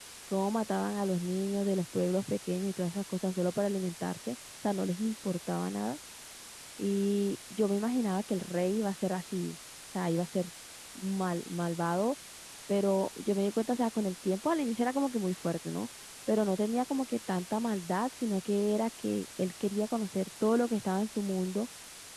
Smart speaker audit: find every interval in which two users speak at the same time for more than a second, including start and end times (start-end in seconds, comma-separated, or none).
none